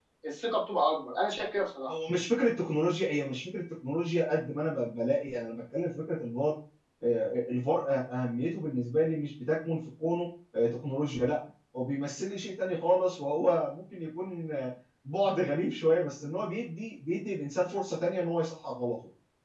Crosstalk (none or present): none